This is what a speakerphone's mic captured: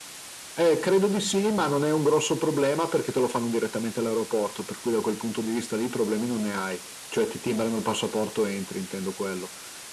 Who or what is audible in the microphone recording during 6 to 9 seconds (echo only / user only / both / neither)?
echo only